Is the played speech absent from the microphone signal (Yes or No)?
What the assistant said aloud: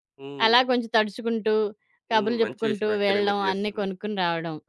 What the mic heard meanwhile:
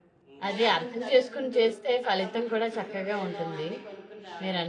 No